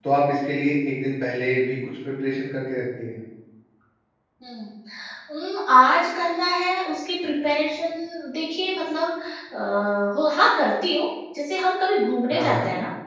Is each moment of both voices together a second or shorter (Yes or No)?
Yes